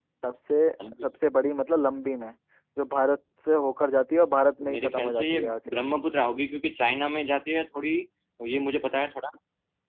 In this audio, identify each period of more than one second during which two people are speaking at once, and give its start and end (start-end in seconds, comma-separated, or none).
4.6-5.9